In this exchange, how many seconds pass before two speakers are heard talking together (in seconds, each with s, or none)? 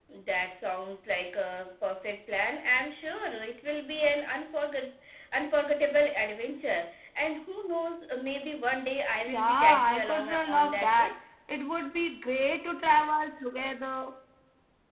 9.3 s